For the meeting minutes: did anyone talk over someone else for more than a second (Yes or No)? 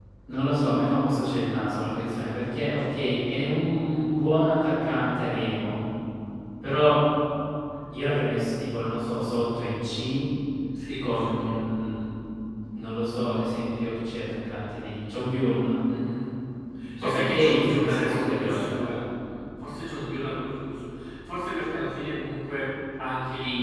Yes